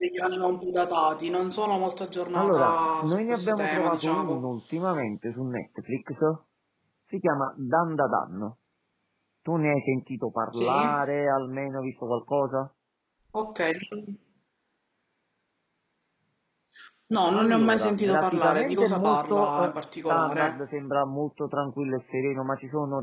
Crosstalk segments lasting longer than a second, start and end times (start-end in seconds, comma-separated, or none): 2.3-4.5, 17.3-20.6